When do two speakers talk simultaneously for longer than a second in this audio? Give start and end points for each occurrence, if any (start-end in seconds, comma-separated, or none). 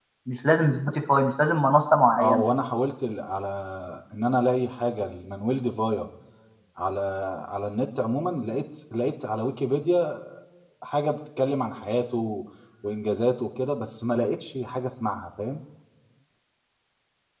none